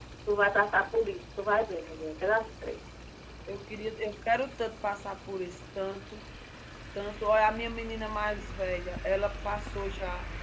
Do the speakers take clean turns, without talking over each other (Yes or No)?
Yes